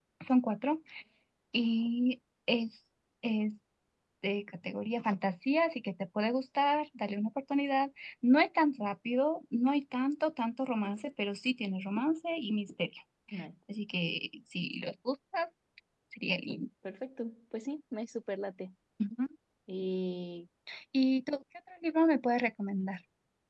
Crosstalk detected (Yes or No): No